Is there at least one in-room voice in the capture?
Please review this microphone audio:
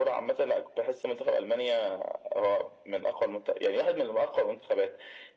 No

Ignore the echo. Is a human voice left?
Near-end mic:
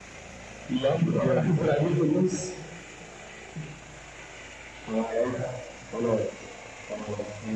Yes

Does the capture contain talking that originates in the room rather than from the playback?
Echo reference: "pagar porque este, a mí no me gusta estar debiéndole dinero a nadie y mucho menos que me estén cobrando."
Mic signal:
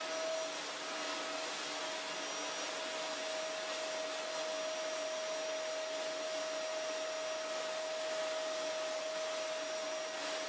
No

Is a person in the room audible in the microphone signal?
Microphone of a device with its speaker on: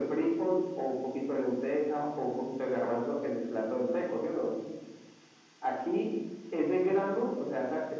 No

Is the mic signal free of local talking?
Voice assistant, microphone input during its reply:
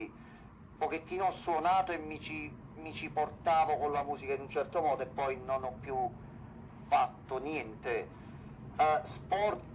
Yes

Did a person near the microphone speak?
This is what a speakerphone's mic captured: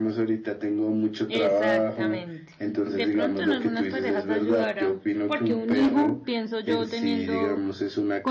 Yes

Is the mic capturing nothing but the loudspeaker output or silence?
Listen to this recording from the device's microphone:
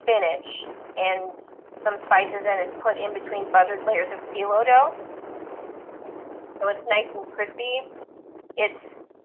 Yes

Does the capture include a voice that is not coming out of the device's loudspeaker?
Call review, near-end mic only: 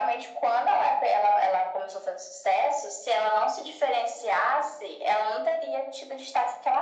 No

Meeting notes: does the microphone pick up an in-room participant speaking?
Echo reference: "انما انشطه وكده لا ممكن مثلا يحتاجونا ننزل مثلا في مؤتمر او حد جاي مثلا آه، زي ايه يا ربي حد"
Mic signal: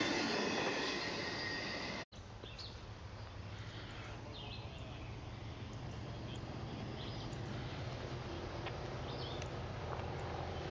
No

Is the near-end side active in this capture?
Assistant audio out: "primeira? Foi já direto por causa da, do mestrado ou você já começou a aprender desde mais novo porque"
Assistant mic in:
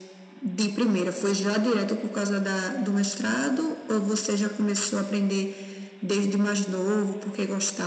No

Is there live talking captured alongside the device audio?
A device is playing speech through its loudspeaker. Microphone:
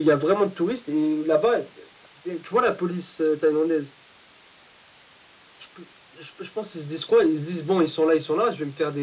No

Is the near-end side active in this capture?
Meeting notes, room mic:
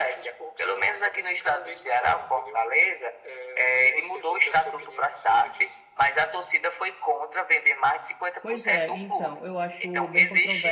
Yes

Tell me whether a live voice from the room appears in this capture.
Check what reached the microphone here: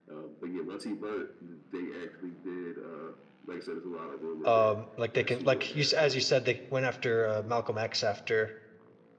Yes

